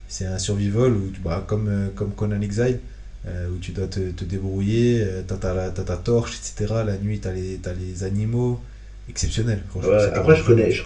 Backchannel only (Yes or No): No